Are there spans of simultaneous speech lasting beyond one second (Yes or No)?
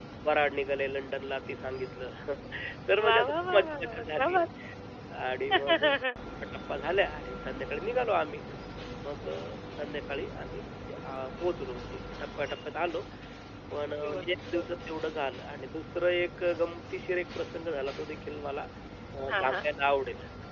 Yes